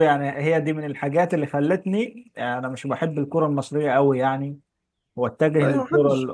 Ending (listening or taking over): taking over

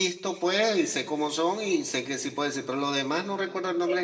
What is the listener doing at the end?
taking over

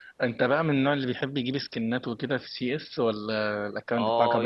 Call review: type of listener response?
taking over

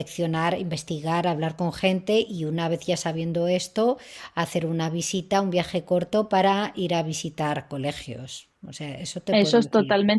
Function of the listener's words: taking over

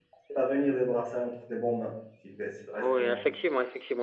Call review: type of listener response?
taking over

